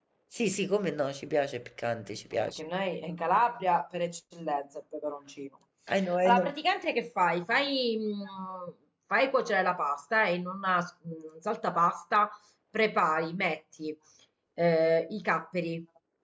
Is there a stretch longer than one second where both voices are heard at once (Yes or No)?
No